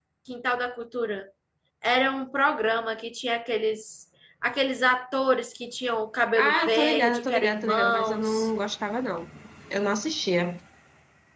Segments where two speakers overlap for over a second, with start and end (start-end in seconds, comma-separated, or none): 6.4-8.5